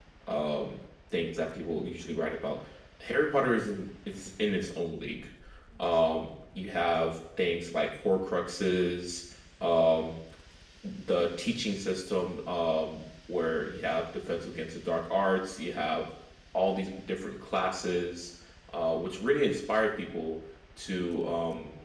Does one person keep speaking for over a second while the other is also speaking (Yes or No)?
No